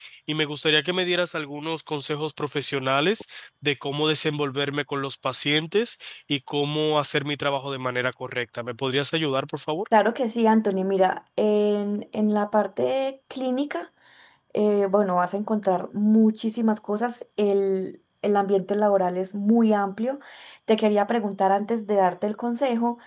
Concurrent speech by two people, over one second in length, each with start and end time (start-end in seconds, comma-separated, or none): none